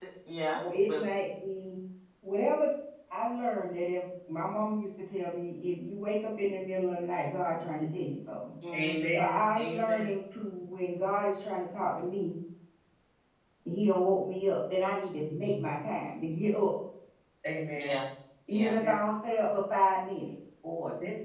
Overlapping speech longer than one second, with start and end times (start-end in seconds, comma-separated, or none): 8.8-10.1